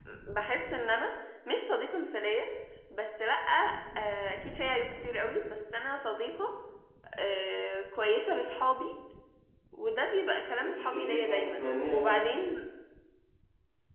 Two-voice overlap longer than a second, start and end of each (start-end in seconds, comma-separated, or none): 10.6-12.4